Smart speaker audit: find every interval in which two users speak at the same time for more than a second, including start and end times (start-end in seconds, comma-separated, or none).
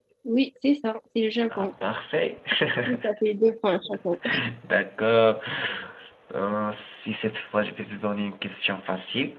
none